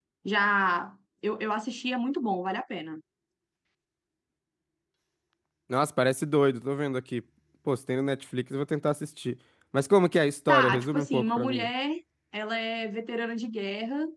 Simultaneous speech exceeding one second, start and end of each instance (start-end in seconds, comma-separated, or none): 10.5-11.7